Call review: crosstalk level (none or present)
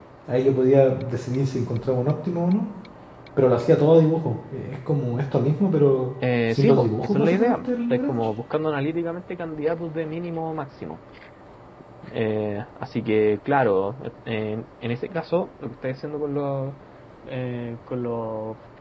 present